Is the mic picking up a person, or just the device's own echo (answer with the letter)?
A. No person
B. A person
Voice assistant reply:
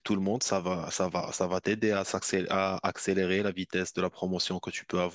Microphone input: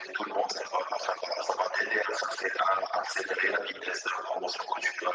A